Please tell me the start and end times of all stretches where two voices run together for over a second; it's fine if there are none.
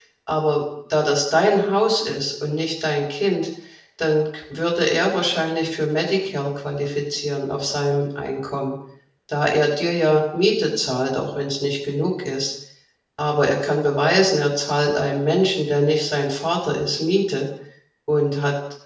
none

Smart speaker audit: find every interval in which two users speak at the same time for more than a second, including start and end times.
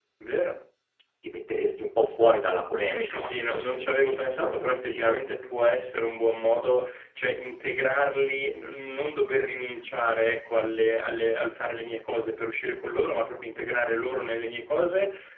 2.8-5.2

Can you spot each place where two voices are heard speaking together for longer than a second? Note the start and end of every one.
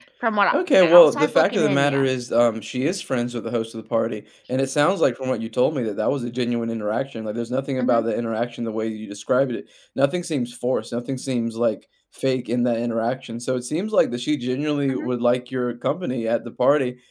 0.5-2.1

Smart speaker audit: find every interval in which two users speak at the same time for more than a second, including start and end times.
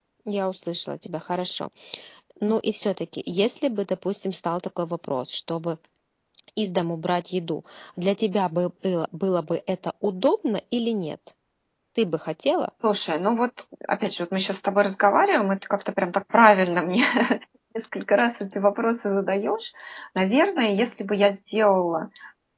none

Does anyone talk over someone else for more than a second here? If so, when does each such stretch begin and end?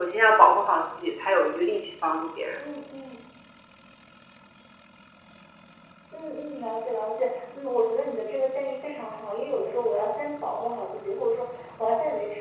none

